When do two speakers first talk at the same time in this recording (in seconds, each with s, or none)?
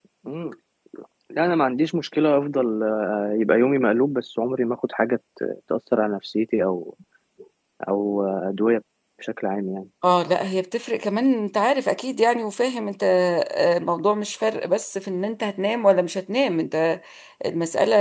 none